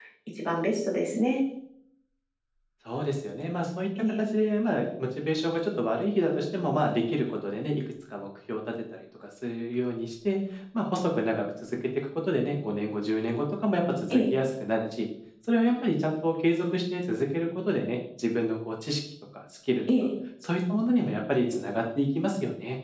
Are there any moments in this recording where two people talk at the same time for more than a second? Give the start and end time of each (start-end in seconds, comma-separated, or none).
none